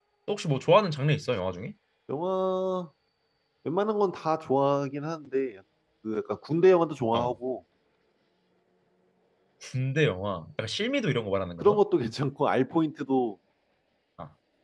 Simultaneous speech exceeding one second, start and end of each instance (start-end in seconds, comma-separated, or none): none